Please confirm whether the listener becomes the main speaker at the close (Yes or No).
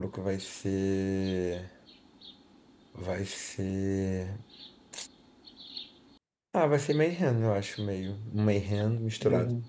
No